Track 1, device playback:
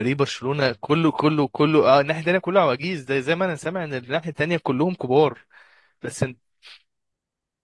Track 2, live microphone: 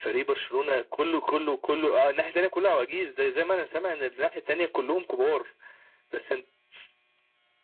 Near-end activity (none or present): none